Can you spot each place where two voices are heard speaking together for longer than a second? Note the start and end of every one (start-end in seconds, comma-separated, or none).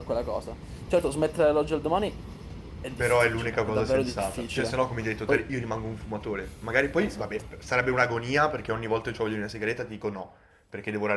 3.0-4.7